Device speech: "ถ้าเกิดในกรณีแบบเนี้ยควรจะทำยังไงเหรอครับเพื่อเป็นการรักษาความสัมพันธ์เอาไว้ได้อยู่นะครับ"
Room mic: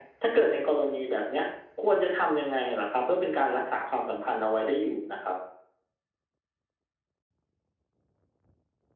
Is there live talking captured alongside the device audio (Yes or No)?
No